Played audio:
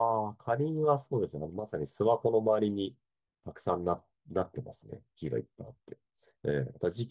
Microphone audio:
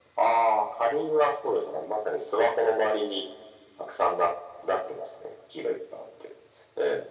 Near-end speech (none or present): none